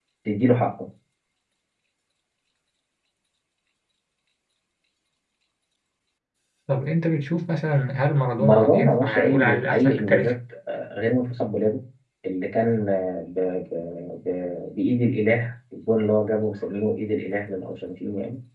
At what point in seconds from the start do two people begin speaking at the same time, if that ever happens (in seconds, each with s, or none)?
8.4 s